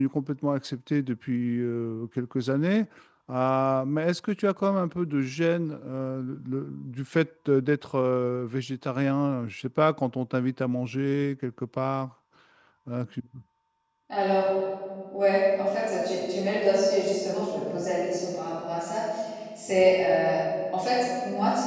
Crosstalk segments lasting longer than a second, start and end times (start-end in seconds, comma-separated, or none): none